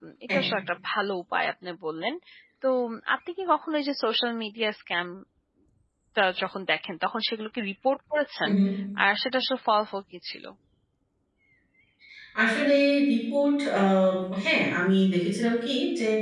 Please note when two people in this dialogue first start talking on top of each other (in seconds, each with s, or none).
none